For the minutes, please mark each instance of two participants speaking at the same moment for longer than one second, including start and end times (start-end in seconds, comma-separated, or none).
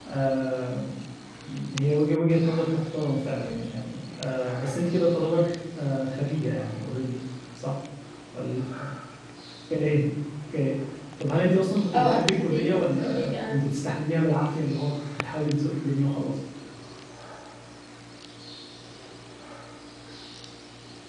11.9-13.6